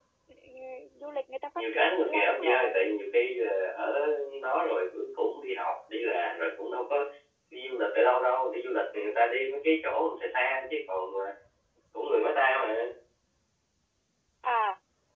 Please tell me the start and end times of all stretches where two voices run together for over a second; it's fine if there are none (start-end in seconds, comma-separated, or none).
1.5-2.8